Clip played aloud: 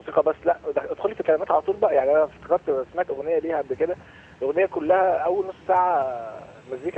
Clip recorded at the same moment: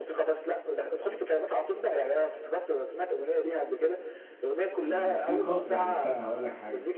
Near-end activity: present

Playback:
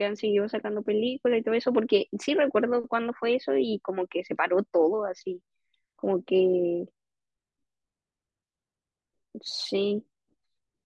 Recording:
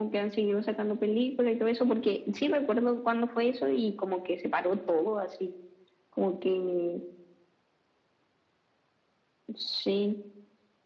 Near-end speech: none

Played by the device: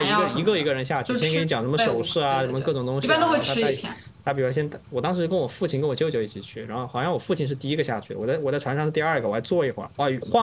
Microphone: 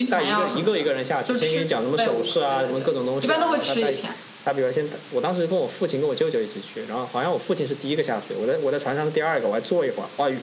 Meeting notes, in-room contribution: none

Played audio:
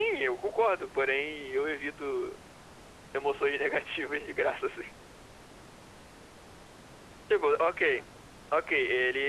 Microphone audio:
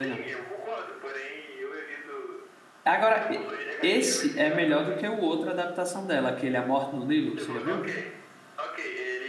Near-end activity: present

